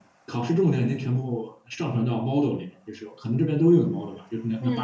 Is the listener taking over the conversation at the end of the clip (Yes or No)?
No